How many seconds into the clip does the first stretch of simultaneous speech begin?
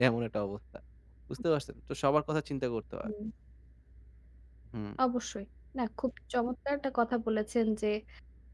none

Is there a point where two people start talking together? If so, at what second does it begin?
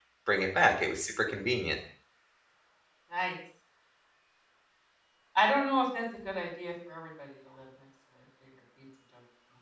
none

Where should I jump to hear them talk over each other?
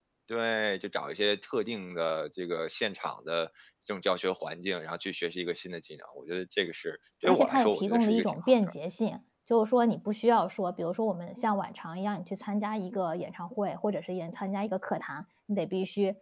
7.2 s

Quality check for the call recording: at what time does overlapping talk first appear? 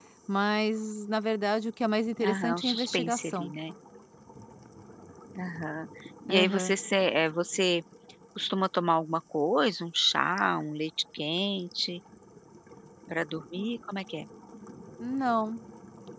2.2 s

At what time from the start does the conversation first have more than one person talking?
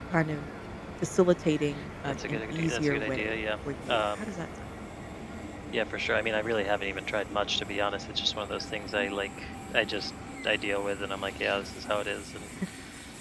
2.0 s

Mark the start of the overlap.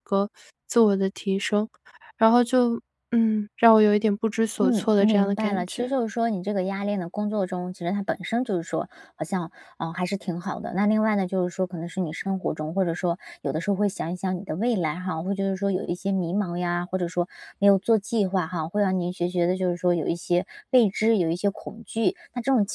4.6 s

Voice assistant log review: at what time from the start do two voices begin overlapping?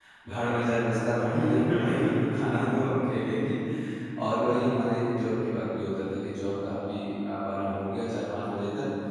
1.3 s

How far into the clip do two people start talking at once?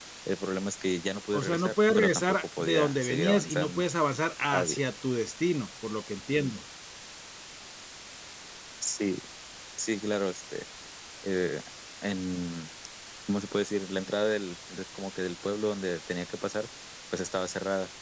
1.3 s

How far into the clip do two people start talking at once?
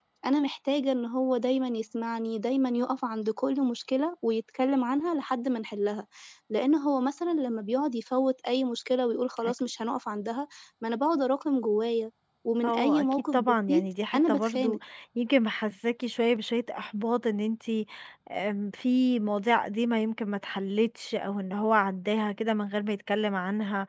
12.6 s

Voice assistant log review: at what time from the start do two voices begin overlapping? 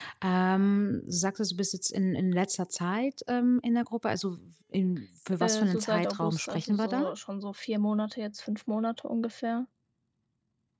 5.4 s

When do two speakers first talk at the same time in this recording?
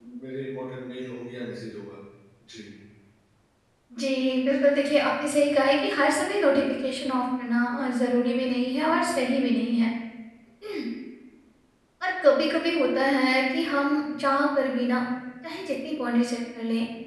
none

